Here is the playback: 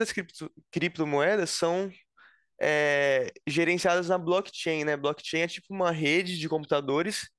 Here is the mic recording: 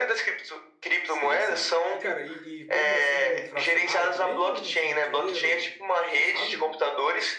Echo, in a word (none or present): present